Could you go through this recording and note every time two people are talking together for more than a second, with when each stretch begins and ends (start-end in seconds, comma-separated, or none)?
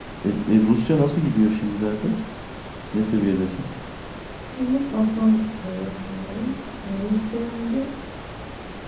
none